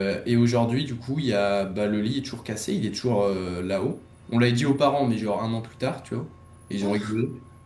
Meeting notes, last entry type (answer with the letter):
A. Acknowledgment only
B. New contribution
A